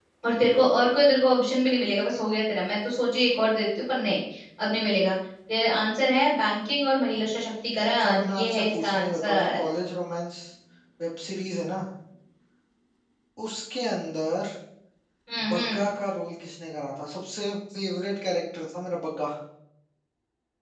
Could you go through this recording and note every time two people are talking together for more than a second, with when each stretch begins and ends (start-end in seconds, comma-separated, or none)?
8.0-9.6